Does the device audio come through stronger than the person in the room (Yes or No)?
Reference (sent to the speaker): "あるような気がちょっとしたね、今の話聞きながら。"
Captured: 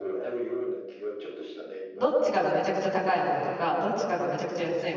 No